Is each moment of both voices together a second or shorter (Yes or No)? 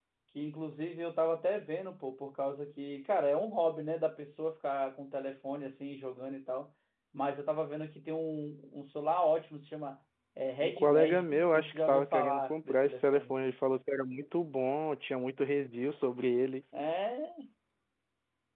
No